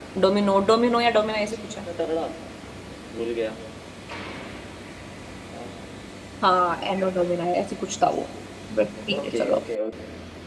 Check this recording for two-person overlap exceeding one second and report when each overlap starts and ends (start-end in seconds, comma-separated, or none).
none